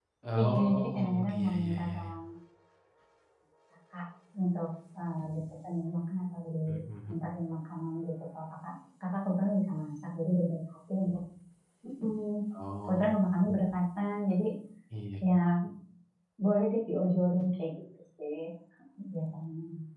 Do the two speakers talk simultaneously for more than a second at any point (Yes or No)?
Yes